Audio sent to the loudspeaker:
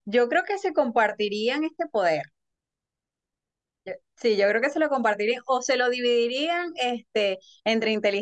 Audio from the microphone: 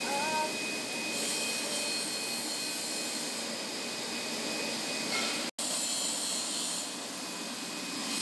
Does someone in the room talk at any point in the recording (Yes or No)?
No